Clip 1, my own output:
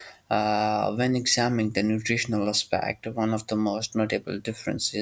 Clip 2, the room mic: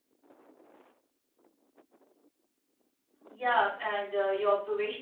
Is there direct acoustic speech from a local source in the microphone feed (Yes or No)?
Yes